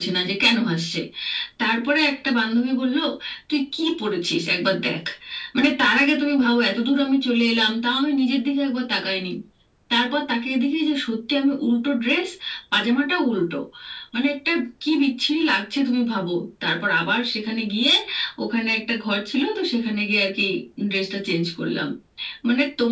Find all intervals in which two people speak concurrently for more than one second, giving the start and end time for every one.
none

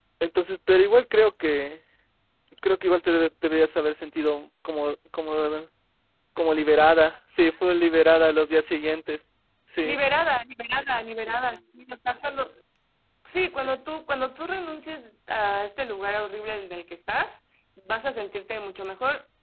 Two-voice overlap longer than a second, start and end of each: none

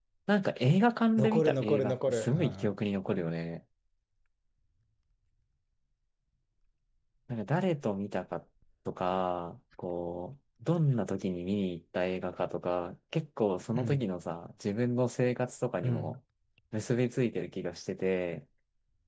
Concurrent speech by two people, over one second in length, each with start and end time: 1.2-2.8

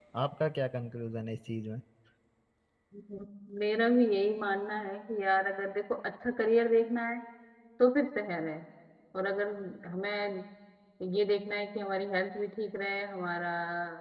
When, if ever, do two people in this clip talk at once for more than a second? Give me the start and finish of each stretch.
none

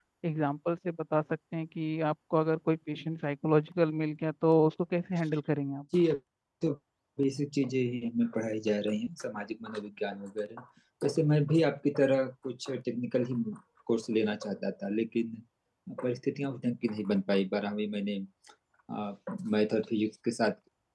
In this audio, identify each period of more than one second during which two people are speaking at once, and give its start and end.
none

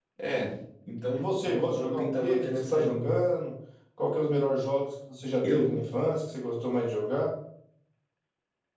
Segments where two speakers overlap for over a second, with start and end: 1.1-3.1

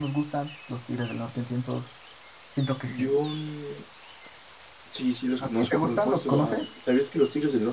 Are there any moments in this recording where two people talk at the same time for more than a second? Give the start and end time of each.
5.4-6.7

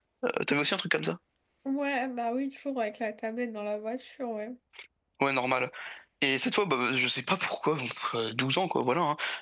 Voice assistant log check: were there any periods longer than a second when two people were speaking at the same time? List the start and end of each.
none

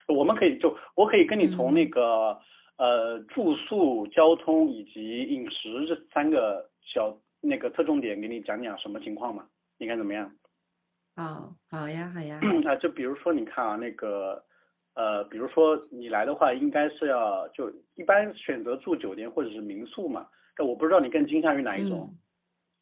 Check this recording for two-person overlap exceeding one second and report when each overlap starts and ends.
none

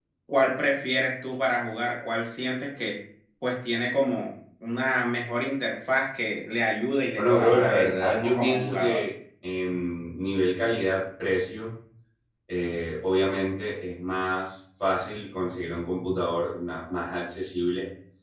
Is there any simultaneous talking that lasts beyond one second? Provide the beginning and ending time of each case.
7.2-9.0

